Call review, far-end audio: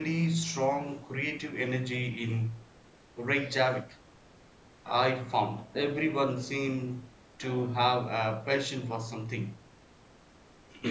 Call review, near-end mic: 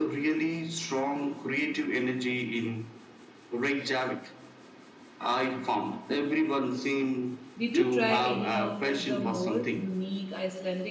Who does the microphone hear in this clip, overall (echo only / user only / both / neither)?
both